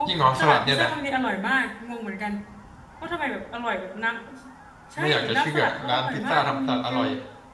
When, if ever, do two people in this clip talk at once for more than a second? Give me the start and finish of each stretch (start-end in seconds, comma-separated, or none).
5.0-7.0